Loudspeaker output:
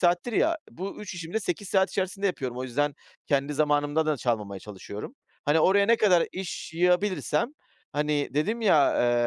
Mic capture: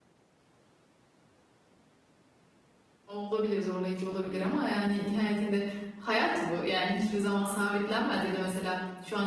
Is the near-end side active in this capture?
Yes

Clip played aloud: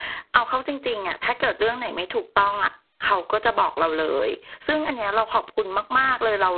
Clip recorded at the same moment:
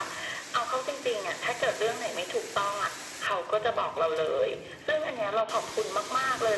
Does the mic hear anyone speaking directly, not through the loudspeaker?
No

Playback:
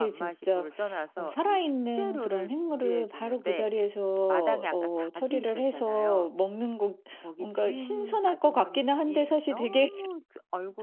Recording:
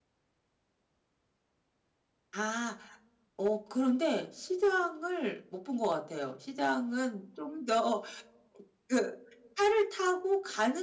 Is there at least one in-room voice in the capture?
Yes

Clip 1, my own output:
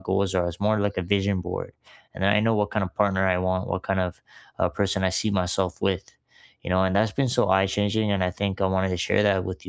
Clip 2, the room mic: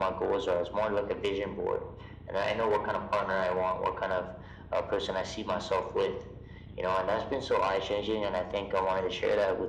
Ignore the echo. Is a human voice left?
No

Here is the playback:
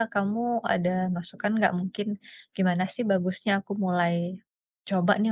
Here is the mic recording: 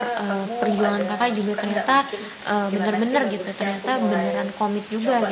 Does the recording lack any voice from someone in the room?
No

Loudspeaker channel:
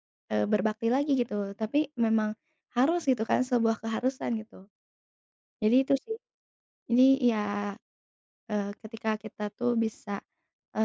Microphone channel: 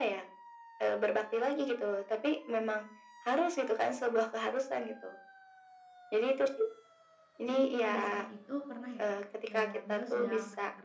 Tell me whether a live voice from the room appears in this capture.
Yes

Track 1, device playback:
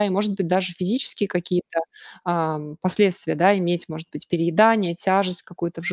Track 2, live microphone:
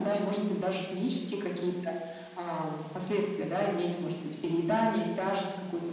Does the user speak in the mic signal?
No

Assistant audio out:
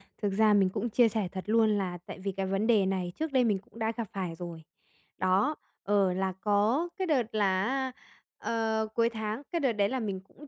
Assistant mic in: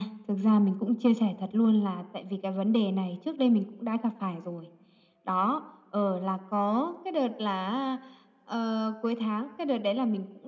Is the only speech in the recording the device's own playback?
Yes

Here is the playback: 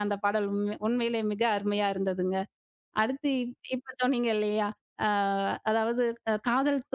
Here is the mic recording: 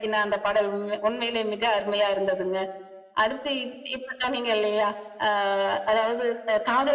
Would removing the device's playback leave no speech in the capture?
Yes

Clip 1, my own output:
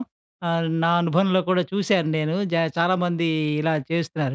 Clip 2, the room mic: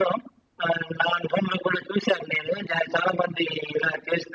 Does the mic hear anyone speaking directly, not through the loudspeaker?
No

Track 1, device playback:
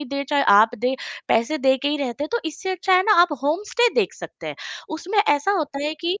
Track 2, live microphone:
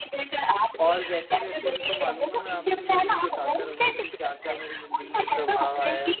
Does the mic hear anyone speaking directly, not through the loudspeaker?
Yes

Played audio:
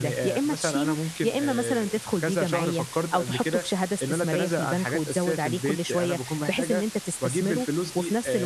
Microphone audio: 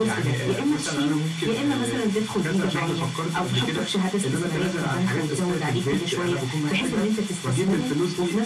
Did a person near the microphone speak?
No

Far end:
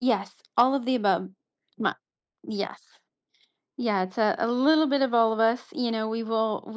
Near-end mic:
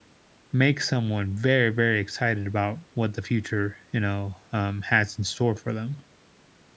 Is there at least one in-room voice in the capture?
Yes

